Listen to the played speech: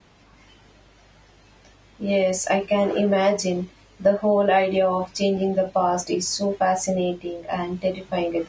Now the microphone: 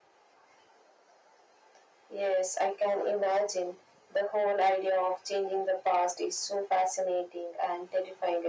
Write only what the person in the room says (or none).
none